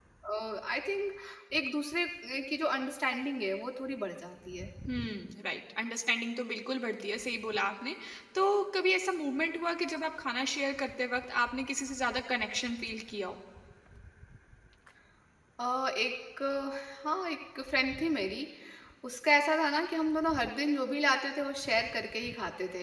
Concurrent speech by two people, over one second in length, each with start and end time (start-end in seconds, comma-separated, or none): none